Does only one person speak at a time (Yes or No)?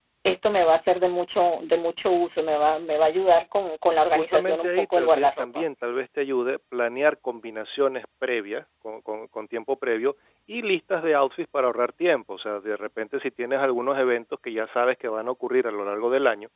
No